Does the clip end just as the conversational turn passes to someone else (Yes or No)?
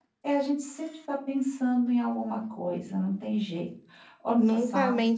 Yes